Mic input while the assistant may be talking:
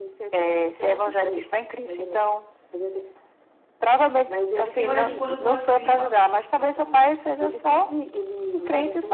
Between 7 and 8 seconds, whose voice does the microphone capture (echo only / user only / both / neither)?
echo only